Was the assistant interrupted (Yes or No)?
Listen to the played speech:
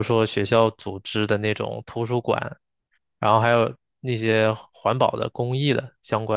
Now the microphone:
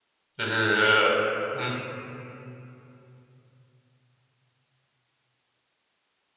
Yes